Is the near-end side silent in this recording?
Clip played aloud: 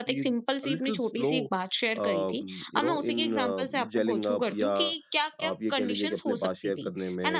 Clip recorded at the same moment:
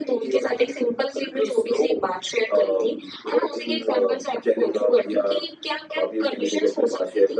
Yes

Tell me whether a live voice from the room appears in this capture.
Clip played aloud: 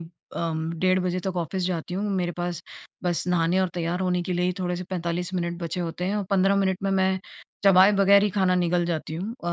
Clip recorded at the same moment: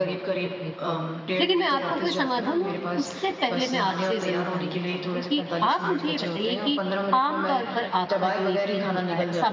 Yes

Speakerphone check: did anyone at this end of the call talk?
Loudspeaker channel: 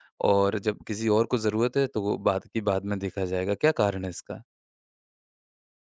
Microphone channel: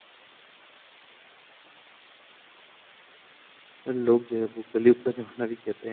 Yes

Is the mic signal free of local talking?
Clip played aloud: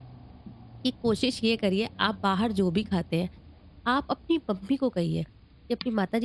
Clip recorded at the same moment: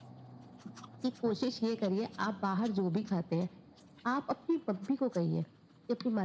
Yes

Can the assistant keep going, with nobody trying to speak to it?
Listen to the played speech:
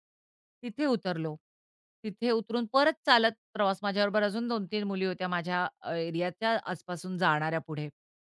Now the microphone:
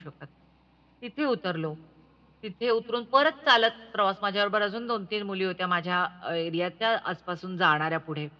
Yes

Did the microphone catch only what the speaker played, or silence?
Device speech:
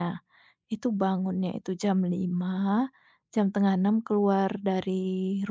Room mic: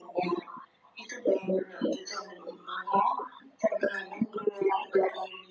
Yes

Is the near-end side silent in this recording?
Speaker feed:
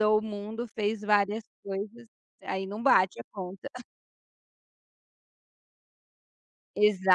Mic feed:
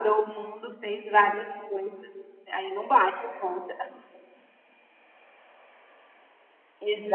Yes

